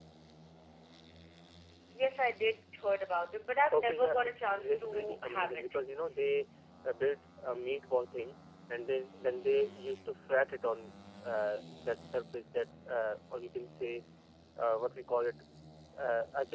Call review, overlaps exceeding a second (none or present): present